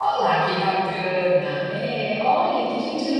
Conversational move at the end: taking over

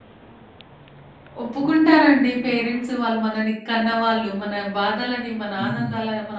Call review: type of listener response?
listening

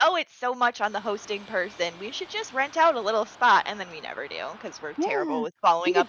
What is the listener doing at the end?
taking over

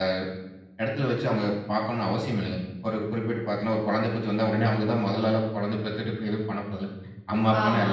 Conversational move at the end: taking over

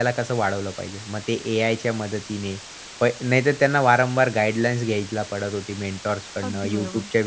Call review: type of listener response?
listening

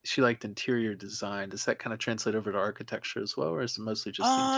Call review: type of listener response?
taking over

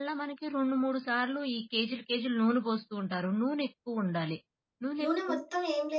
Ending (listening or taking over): taking over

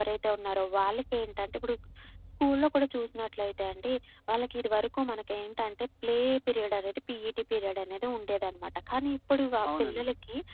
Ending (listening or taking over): listening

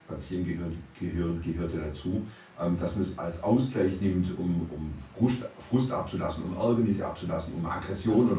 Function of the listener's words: listening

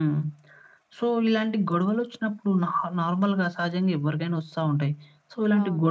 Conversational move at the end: listening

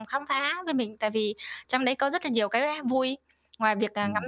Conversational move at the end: listening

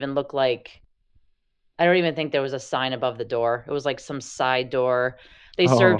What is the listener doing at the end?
listening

